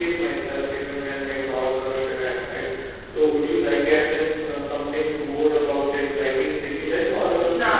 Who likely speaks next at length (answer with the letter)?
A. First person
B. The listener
A